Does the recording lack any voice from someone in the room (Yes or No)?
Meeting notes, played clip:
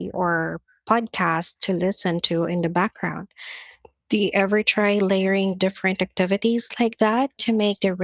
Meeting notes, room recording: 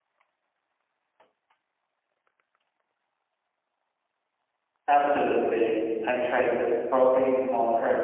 No